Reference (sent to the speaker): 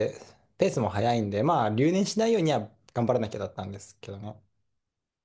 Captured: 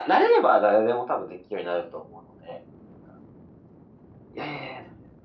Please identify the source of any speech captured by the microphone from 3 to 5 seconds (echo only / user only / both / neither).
user only